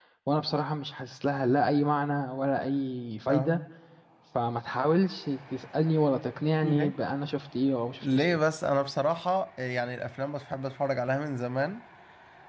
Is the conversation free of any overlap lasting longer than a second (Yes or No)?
Yes